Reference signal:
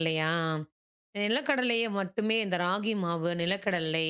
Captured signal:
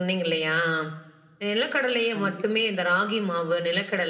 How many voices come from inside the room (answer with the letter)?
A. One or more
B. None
A